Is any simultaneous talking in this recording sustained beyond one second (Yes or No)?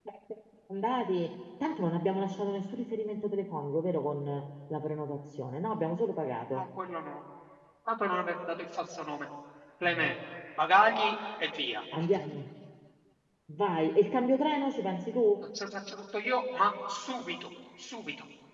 No